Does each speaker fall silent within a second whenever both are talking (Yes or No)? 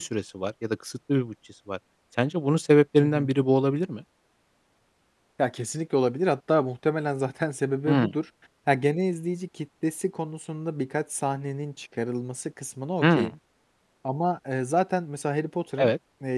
Yes